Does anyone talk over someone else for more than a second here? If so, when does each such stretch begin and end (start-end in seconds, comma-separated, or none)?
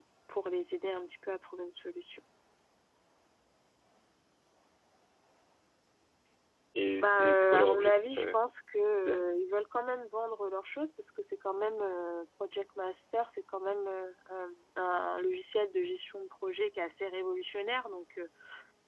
7.0-8.4